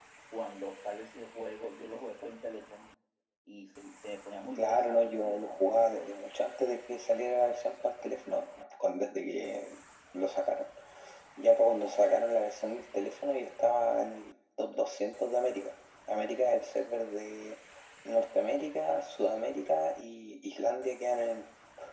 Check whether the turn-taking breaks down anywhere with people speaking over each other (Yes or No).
Yes